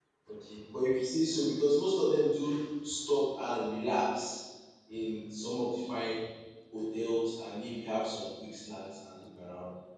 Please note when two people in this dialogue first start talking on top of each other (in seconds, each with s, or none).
none